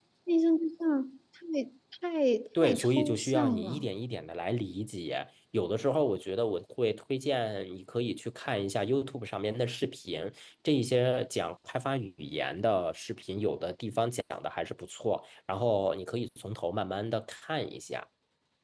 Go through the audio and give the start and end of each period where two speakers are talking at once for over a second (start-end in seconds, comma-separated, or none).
2.6-3.9